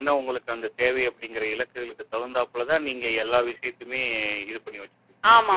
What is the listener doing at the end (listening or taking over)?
taking over